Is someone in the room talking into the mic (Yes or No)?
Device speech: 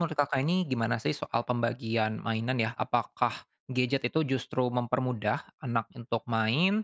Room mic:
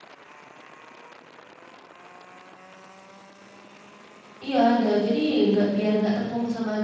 Yes